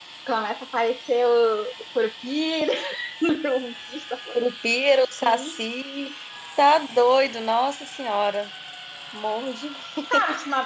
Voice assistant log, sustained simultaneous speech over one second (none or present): none